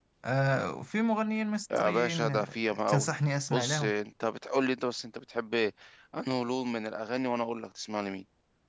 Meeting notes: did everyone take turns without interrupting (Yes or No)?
No